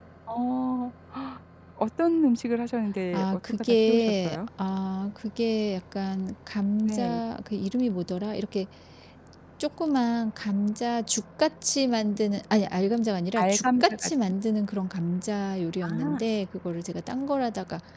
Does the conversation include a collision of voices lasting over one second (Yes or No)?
Yes